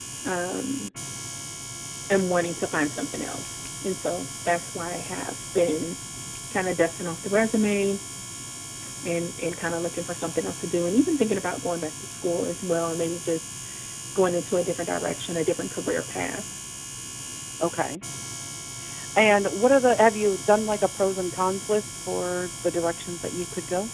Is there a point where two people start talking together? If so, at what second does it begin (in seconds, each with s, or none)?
none